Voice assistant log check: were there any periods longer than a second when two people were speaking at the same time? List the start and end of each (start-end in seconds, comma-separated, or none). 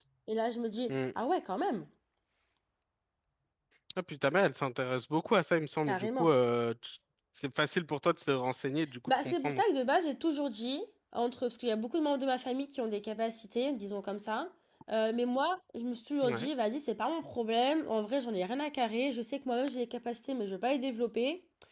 none